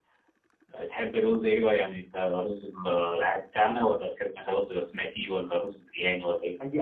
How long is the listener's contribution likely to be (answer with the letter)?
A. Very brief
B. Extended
B